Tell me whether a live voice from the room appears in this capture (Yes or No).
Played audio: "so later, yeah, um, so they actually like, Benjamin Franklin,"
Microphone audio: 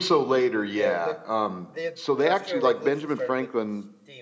Yes